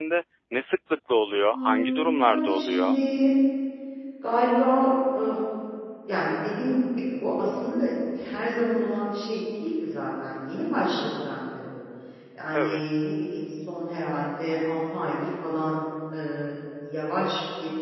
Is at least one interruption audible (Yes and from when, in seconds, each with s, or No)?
Yes, from 1.5 s